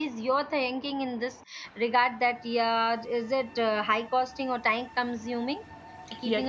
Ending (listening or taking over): taking over